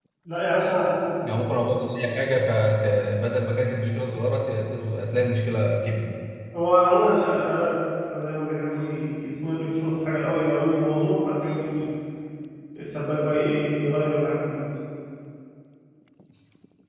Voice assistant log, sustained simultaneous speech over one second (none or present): none